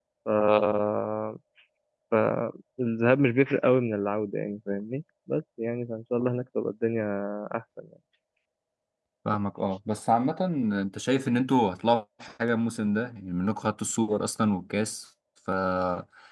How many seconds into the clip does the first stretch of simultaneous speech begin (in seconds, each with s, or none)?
none